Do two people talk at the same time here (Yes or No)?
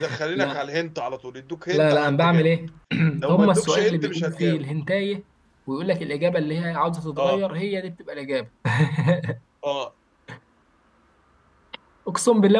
Yes